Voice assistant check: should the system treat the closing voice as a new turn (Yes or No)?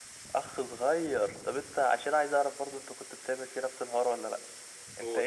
No